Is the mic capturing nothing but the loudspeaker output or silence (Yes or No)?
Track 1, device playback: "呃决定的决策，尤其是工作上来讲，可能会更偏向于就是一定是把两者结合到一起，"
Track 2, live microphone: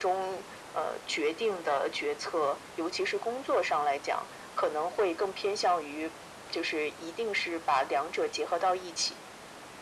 Yes